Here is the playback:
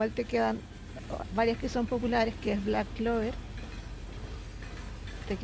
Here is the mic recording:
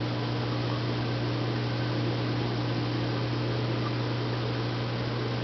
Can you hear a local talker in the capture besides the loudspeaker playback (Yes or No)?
No